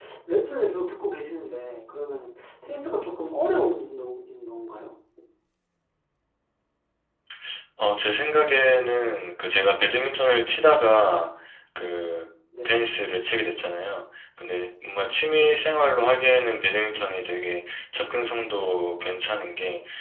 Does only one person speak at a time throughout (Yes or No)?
Yes